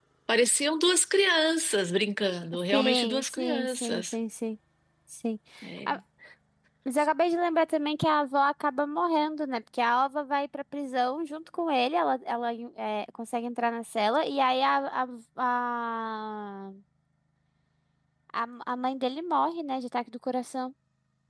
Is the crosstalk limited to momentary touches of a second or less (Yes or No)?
No